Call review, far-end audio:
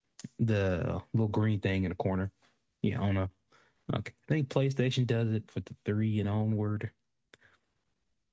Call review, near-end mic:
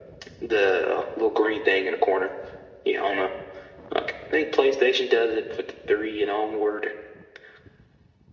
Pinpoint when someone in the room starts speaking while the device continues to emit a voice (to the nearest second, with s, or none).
none